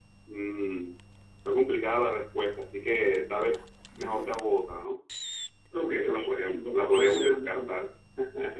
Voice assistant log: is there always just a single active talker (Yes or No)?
No